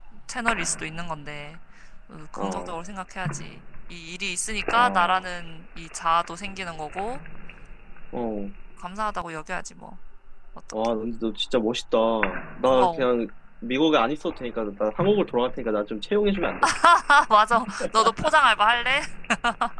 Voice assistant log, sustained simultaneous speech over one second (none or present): none